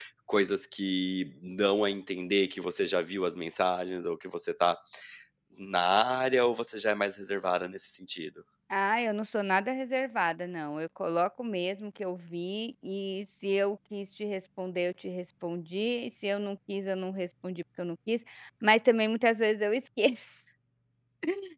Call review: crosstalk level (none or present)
none